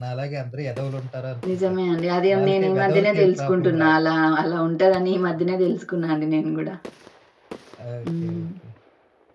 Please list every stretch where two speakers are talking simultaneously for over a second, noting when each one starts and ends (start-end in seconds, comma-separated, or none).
2.4-3.9